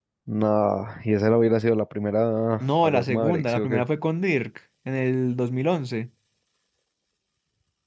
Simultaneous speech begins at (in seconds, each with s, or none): 2.6 s